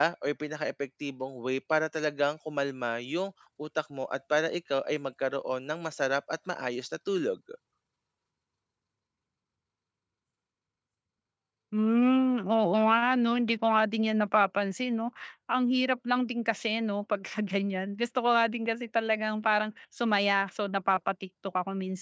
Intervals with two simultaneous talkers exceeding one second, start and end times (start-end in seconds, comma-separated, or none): none